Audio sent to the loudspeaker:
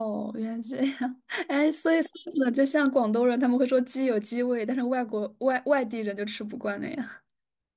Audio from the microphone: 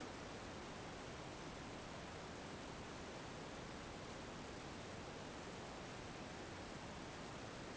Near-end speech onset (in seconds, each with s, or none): none